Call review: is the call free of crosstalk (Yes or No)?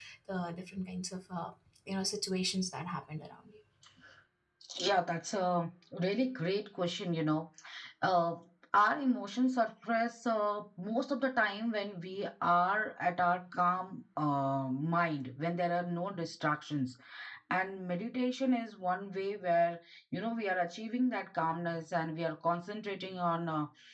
Yes